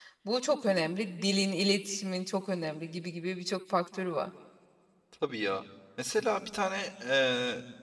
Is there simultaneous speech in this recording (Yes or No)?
No